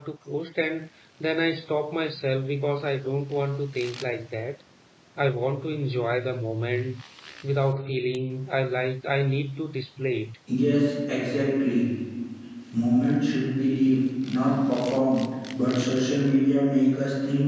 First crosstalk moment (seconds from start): none

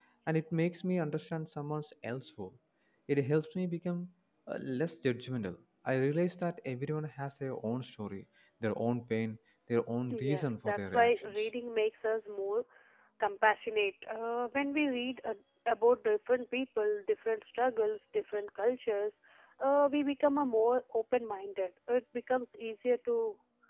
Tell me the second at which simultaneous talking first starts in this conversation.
10.1 s

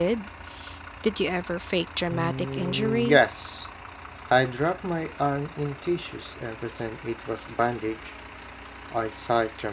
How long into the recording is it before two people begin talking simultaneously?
2.1 s

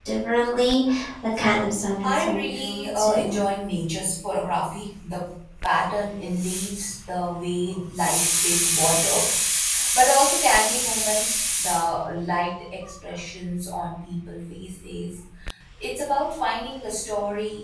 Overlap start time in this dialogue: 2.0 s

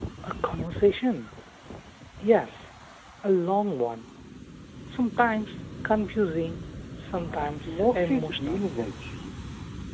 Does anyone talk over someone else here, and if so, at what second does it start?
7.1 s

